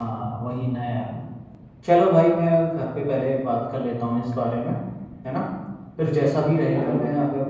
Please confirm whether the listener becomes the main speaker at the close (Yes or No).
No